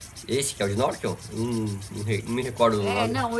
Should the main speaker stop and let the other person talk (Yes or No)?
Yes